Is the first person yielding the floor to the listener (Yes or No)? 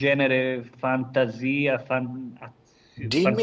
Yes